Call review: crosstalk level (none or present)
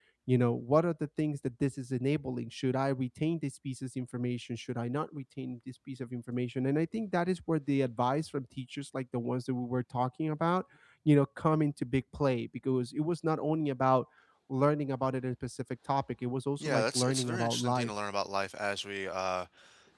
present